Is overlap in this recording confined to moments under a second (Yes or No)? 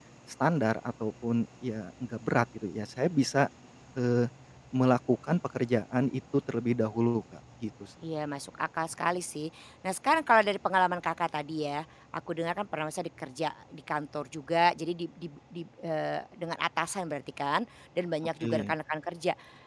Yes